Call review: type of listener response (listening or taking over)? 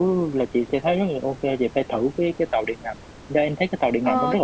taking over